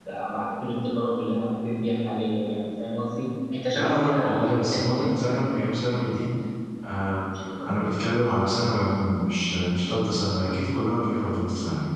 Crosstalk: present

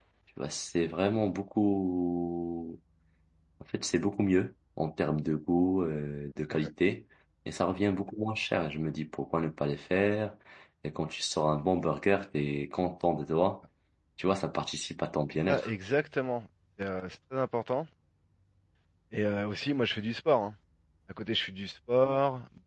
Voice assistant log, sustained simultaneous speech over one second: none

